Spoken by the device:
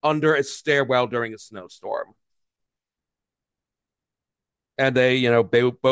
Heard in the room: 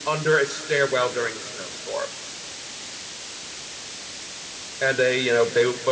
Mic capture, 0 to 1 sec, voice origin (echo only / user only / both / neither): echo only